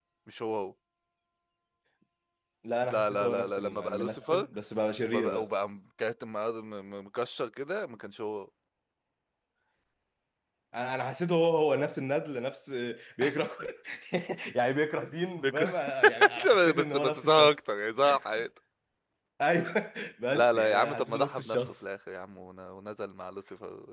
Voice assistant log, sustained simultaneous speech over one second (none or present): present